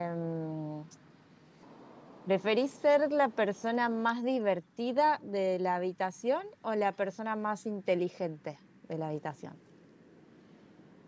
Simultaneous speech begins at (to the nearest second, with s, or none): none